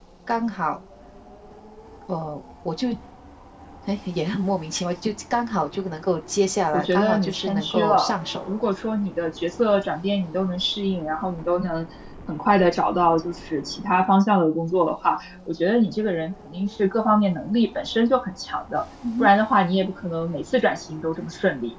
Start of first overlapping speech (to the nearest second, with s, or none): 7 s